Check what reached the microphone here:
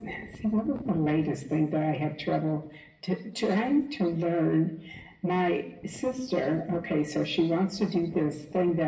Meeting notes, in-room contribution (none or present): none